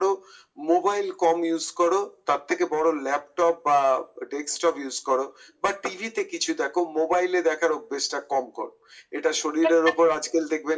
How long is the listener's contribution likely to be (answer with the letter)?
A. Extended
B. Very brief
B